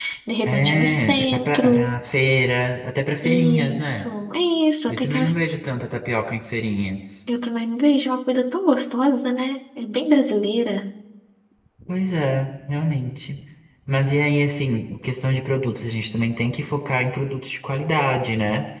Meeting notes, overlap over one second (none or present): present